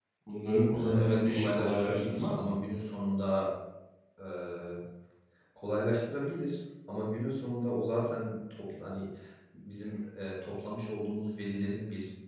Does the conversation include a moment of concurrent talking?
Yes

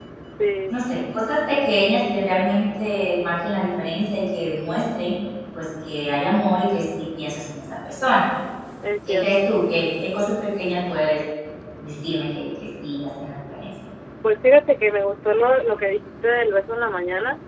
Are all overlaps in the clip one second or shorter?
Yes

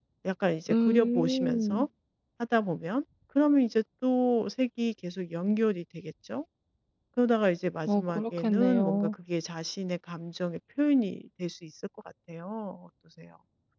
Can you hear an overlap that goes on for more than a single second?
Yes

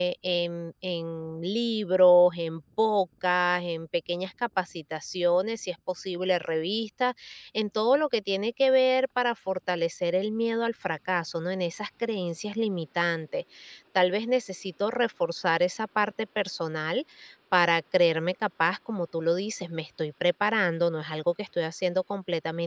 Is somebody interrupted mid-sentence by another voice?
No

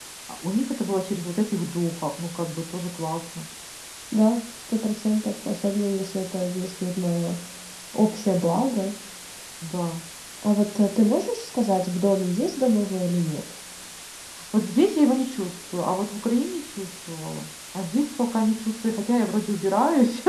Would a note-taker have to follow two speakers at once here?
No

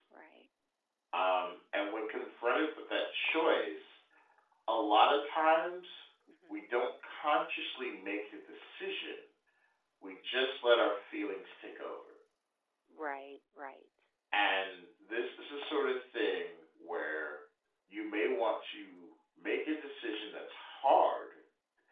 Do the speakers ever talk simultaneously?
No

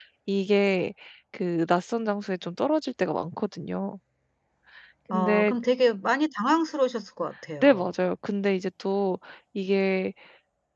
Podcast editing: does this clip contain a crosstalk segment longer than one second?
No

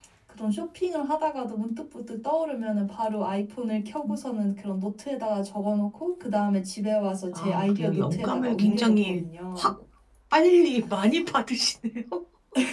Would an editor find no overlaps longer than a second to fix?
No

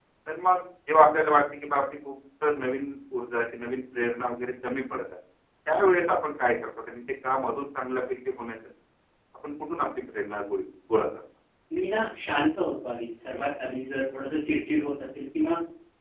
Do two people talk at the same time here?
No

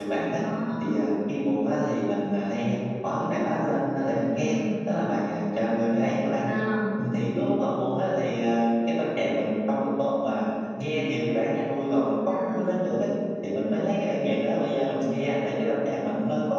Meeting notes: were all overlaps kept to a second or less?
Yes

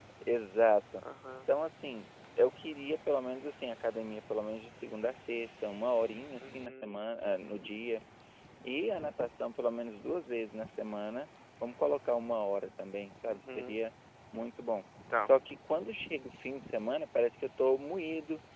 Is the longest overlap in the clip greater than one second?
No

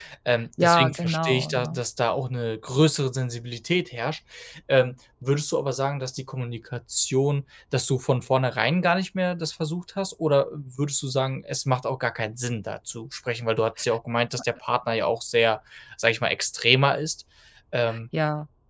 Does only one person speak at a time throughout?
No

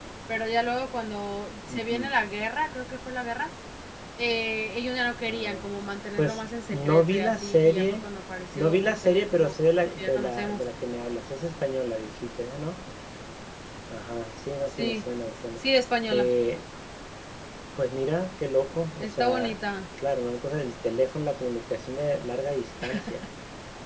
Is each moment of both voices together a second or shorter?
No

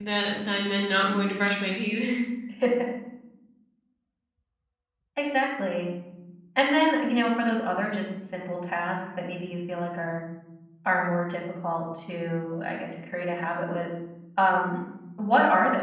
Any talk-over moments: No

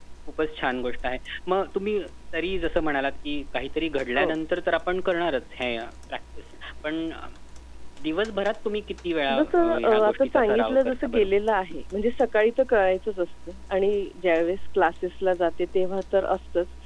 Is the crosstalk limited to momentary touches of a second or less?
No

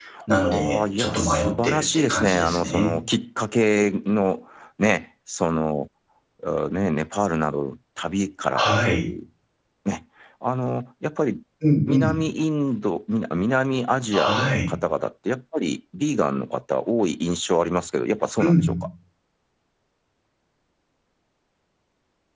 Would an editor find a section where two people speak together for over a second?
Yes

